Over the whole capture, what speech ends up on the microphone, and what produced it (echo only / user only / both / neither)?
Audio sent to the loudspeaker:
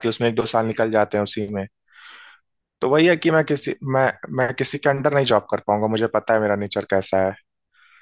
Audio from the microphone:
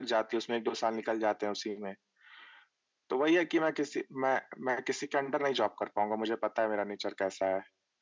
echo only